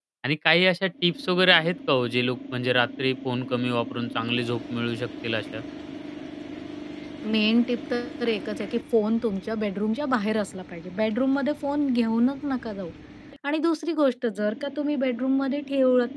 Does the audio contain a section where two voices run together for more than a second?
No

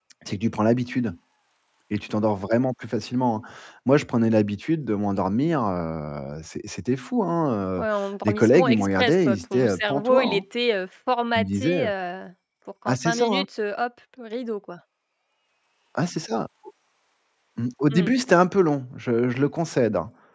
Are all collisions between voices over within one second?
No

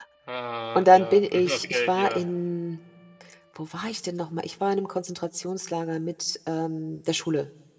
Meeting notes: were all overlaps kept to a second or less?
No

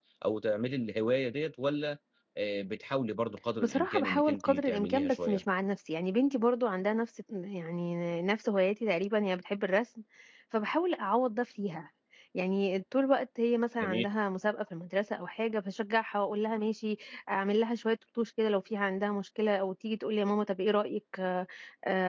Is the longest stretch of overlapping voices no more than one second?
No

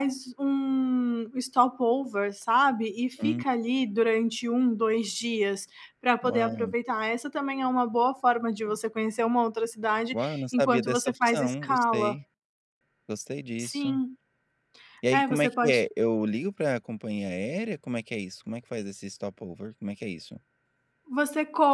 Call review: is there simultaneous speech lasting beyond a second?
Yes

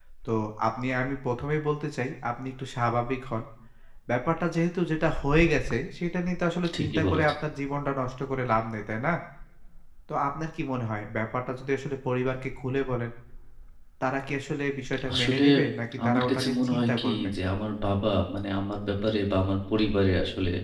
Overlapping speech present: Yes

